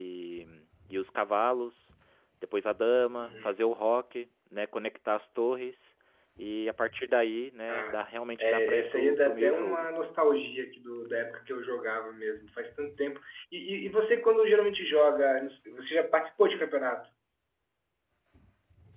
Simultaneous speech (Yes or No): Yes